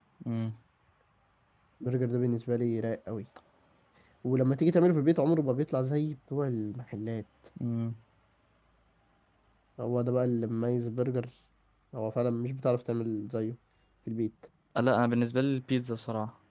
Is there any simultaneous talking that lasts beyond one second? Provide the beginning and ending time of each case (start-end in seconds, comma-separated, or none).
none